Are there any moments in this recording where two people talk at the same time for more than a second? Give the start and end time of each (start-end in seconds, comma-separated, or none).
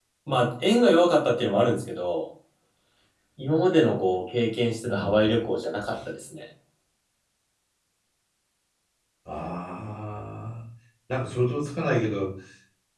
none